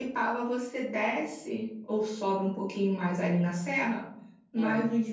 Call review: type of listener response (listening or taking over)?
listening